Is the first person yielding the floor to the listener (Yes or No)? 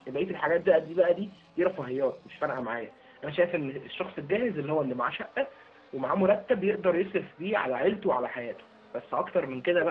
No